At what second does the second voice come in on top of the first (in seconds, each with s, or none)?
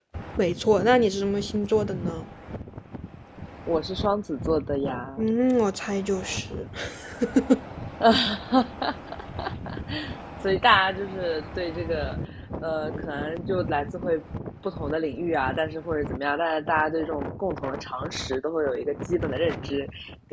none